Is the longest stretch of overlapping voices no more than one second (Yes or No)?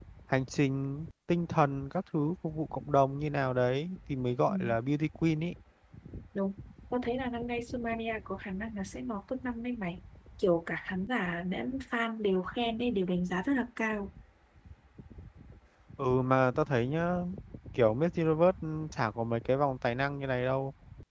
Yes